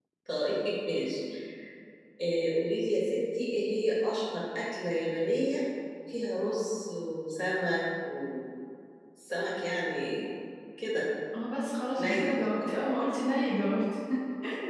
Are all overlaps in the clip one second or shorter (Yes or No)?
Yes